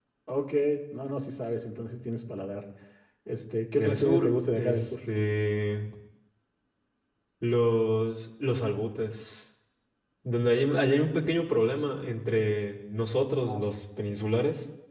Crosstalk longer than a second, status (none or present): present